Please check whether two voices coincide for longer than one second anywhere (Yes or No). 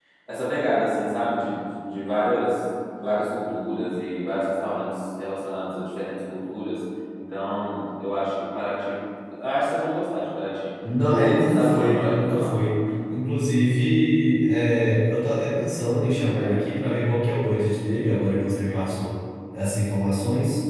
Yes